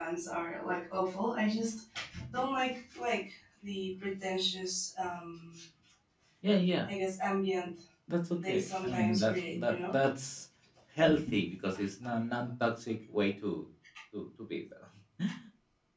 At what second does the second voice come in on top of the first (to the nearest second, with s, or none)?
8 s